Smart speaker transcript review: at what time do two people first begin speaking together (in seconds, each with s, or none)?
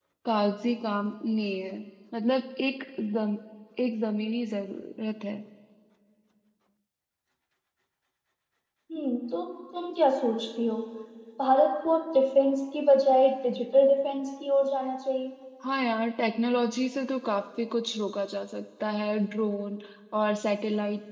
none